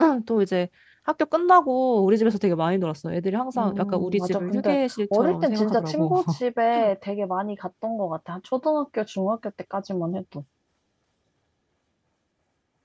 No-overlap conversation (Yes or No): No